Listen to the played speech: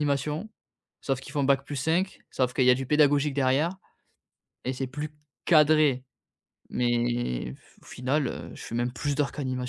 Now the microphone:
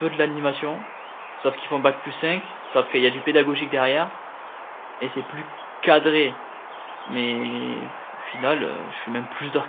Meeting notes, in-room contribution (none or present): none